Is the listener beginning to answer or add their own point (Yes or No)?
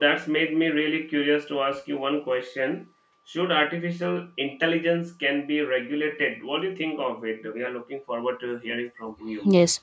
Yes